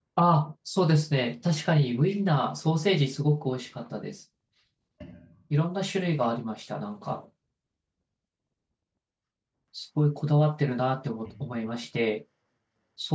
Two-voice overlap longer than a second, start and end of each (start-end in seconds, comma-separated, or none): none